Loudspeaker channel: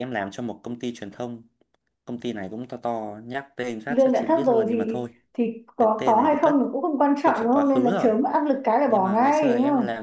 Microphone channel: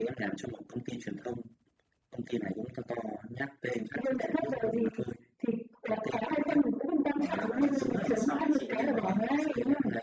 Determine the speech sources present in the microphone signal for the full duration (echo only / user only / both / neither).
both